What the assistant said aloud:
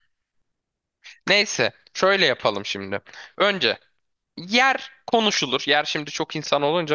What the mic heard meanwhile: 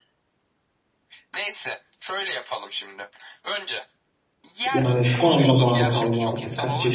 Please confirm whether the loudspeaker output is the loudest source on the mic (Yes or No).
No